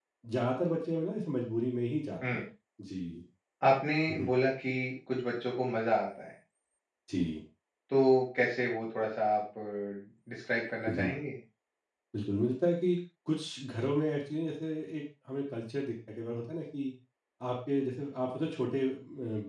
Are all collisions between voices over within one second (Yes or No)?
Yes